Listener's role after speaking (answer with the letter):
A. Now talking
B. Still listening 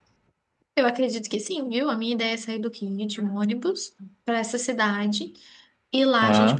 B